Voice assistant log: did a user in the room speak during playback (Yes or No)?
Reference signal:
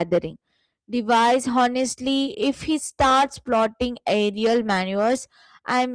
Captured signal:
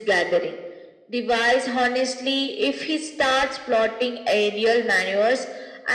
No